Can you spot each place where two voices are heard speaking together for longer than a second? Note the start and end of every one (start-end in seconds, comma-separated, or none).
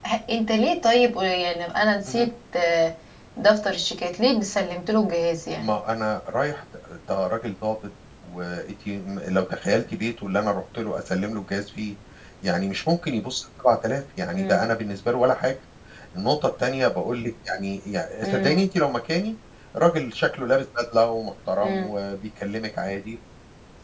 none